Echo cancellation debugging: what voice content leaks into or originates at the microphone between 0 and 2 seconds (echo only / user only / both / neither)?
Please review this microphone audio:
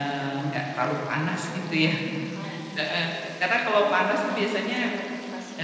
echo only